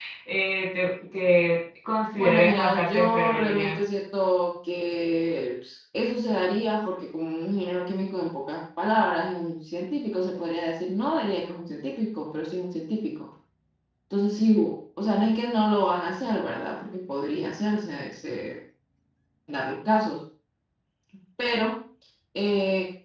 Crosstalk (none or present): present